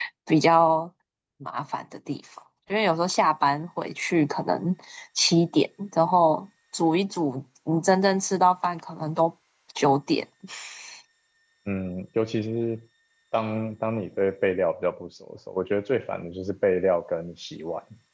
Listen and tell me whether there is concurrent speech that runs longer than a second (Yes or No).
No